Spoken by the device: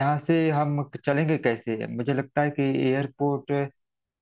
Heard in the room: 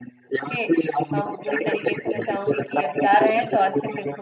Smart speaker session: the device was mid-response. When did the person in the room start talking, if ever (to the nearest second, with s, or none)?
0 s